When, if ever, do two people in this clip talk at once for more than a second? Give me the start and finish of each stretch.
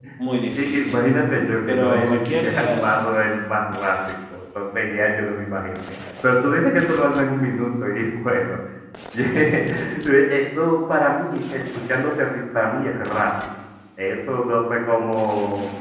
1.7-2.9

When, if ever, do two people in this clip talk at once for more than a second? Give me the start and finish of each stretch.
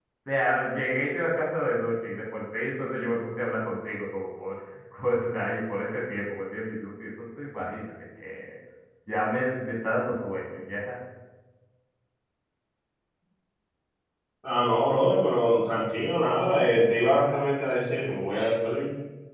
none

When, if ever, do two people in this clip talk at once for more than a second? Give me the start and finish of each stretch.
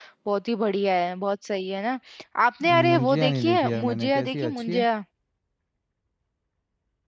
2.9-4.8

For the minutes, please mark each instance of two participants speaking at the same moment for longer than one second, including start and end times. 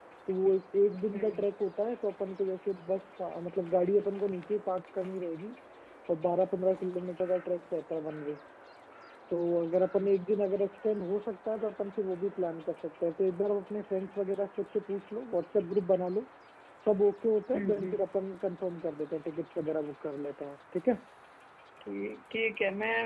none

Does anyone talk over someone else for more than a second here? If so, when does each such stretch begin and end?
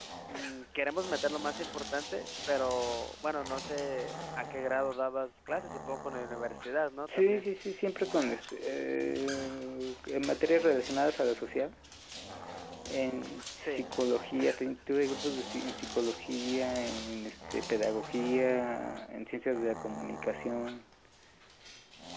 none

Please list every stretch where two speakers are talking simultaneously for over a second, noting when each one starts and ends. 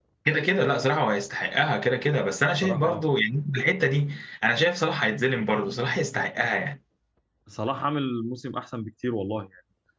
none

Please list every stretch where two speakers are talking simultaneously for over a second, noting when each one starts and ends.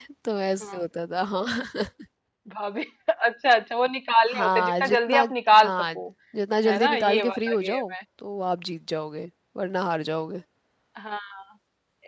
4.3-5.7, 6.6-7.9

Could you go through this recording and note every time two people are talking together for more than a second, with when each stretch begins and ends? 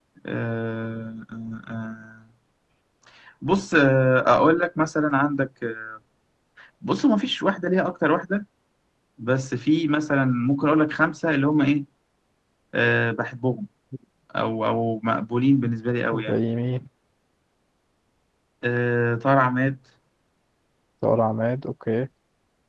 none

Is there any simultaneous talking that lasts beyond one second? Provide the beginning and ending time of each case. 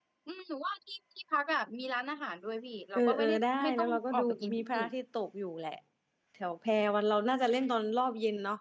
3.0-4.9

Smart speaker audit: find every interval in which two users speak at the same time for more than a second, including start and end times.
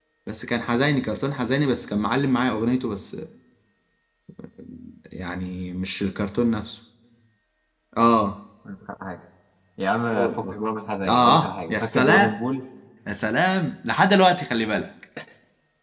11.1-12.4

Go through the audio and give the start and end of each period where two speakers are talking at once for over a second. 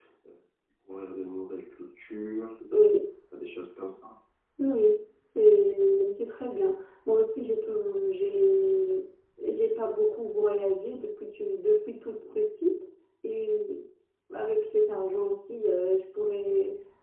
none

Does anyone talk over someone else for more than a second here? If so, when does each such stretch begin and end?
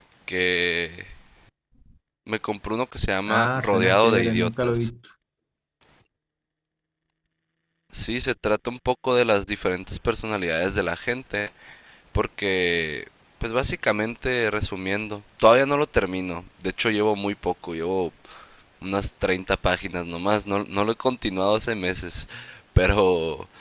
3.3-4.9

